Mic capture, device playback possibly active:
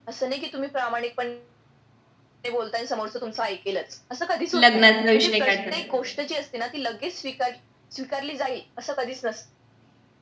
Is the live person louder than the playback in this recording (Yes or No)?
Yes